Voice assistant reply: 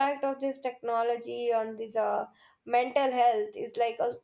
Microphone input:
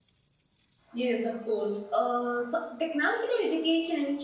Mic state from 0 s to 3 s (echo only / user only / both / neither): user only